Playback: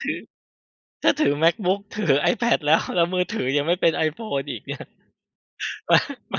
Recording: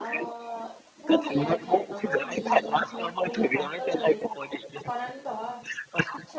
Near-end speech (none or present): present